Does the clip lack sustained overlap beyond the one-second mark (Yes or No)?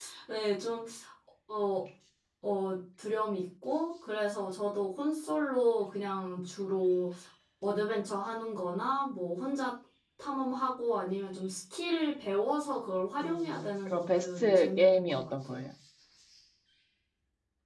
No